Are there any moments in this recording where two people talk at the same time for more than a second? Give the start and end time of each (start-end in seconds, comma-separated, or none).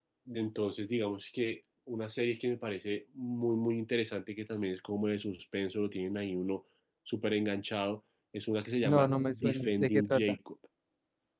8.8-10.3